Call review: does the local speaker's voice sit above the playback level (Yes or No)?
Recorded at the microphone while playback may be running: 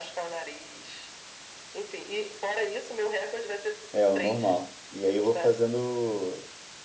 Yes